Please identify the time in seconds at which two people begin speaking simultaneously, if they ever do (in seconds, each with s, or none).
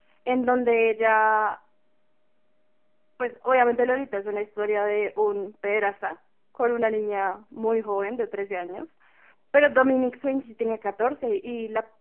none